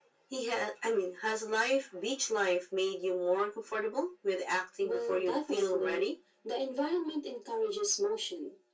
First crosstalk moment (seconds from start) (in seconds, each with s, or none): 4.8 s